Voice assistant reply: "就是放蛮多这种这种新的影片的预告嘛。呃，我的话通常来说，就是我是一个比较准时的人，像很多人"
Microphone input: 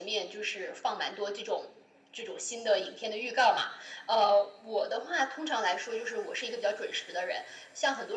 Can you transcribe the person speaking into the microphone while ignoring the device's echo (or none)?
none